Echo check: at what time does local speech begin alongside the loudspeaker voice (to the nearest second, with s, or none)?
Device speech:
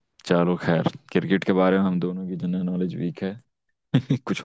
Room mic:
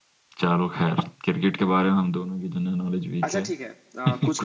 3 s